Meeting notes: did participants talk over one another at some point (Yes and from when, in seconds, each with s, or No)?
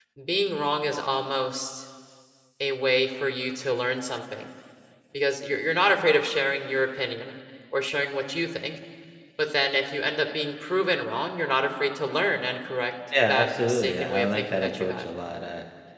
Yes, from 13.1 s